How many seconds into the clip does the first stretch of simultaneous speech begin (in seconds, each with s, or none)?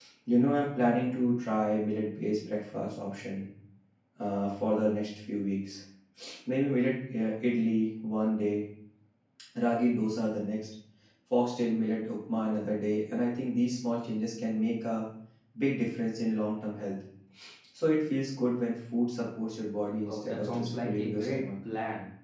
20.1 s